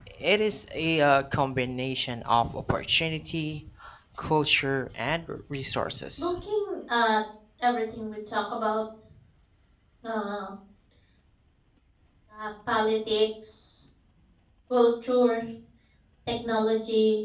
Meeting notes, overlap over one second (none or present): none